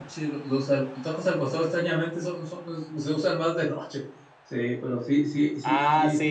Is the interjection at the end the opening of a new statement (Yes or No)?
Yes